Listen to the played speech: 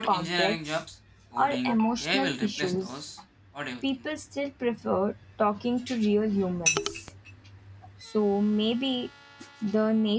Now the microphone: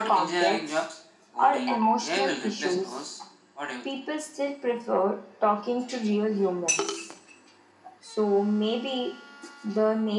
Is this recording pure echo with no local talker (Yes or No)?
Yes